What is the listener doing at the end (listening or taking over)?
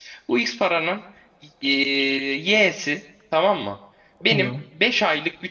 listening